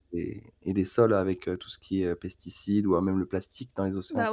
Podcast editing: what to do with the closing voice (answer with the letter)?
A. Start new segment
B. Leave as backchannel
A